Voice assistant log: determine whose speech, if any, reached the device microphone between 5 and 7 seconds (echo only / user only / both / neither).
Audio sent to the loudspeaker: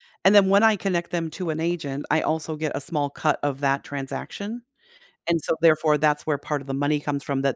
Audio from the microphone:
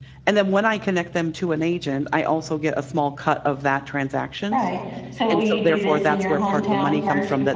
both